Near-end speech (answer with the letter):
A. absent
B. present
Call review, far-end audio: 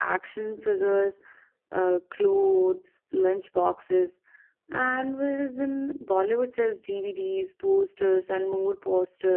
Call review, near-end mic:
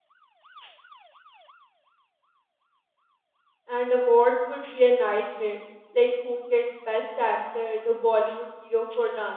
B